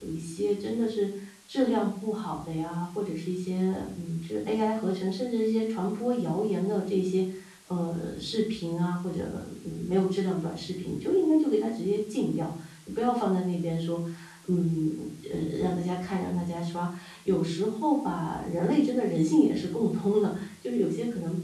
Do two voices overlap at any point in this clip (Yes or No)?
No